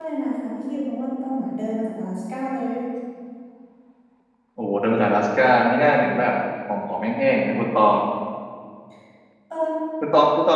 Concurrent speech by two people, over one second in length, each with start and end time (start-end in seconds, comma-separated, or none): none